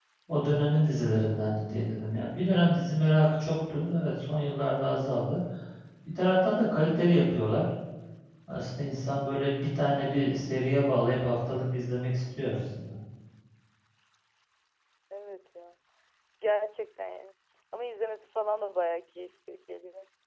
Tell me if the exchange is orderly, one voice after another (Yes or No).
Yes